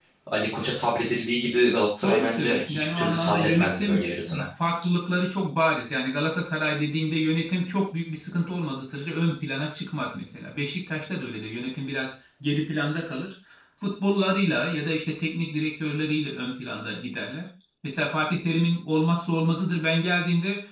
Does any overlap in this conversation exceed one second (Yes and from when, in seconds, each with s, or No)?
Yes, from 2.0 s